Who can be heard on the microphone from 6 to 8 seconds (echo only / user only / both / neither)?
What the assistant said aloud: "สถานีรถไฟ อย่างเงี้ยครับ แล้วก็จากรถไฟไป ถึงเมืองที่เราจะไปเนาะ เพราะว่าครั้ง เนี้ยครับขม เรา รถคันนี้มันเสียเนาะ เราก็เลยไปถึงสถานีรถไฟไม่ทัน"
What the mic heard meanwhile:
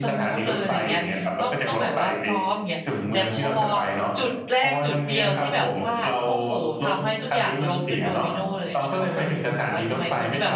both